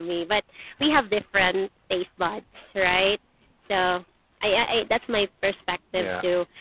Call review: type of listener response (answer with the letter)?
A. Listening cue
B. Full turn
A